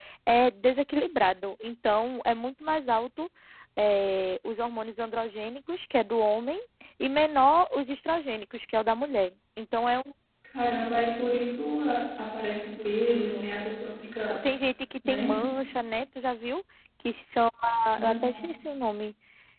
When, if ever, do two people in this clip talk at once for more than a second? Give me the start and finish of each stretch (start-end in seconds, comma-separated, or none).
none